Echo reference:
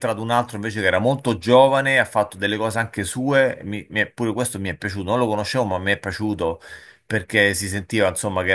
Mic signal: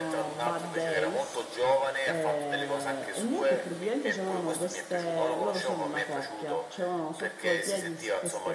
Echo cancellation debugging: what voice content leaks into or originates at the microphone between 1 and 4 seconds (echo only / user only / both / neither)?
both